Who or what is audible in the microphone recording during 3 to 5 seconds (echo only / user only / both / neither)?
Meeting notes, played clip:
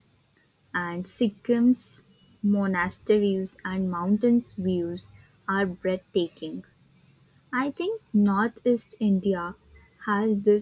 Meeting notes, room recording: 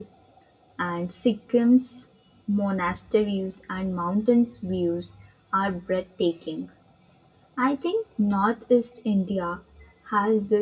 echo only